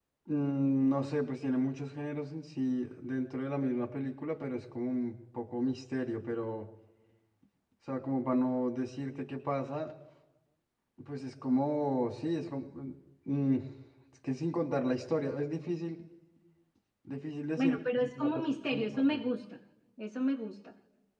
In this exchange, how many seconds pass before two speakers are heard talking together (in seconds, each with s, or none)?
17.6 s